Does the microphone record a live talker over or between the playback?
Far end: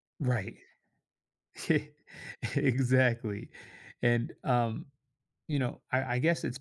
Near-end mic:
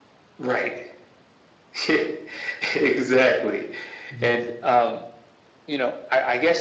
Yes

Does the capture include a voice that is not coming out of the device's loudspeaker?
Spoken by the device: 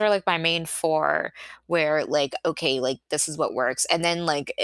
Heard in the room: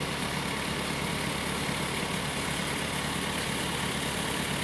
No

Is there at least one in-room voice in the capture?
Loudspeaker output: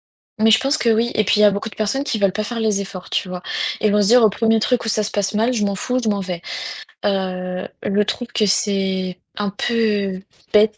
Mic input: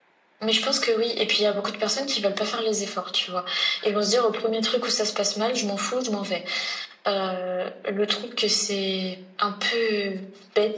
No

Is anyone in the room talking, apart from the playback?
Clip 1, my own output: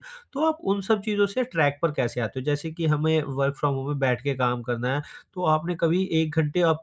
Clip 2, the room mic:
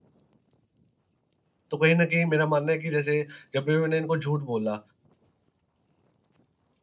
Yes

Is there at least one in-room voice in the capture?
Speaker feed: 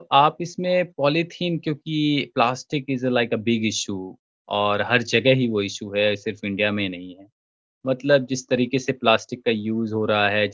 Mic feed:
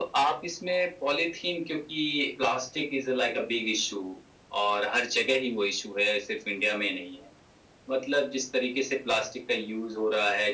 No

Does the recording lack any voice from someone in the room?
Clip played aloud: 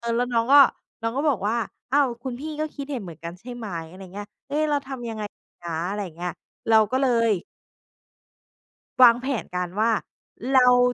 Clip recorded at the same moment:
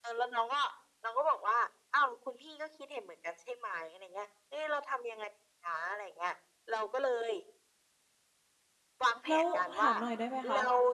No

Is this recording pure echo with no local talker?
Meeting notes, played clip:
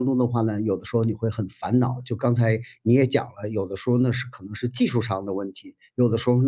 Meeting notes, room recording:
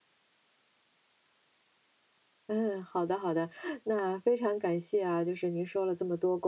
No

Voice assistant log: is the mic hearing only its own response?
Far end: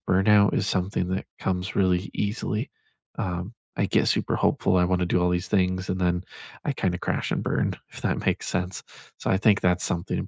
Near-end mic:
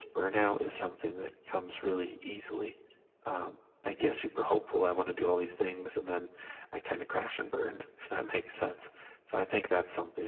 Yes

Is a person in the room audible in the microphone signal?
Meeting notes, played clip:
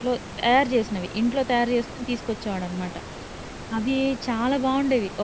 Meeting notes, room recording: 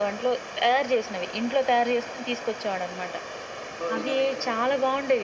Yes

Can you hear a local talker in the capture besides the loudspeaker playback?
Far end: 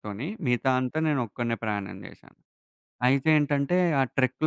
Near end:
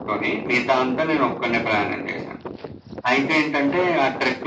No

